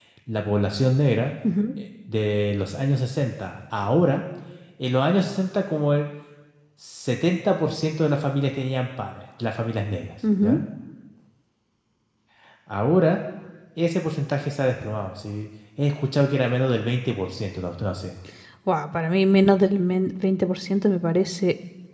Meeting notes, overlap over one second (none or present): none